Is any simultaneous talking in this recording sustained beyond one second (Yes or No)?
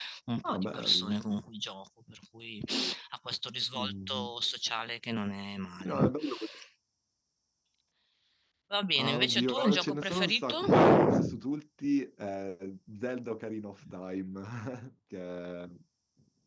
Yes